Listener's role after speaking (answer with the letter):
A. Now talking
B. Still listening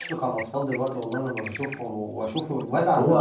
A